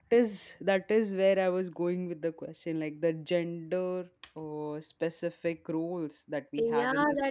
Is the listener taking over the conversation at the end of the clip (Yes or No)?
Yes